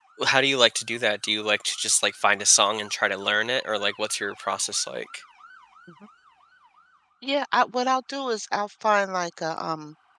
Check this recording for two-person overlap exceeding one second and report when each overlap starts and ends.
none

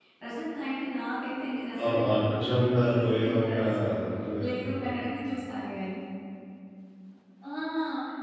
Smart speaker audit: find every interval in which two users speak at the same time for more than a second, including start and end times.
1.8-3.7

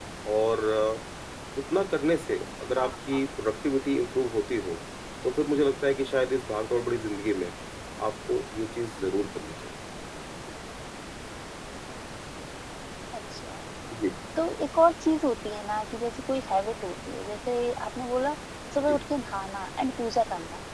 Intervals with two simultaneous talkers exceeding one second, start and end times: none

